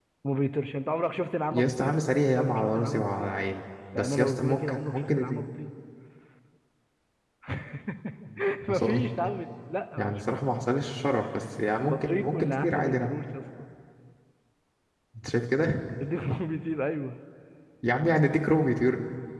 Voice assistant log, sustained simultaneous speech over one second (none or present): present